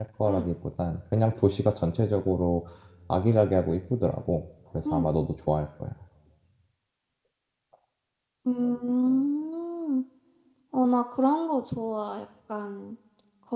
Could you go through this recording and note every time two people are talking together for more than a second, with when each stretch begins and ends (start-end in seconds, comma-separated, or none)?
none